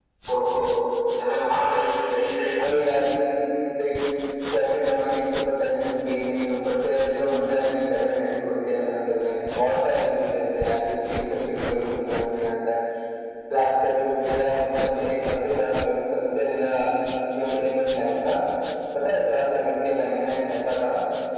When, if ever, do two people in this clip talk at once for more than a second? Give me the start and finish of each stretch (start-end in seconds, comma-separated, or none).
none